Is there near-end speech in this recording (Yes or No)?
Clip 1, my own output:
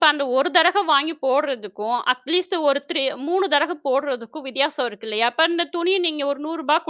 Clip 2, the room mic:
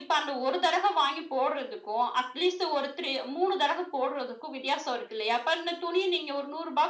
No